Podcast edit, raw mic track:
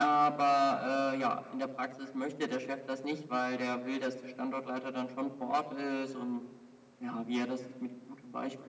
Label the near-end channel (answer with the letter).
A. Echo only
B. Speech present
A